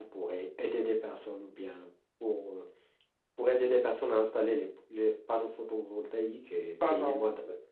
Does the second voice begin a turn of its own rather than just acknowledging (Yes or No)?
Yes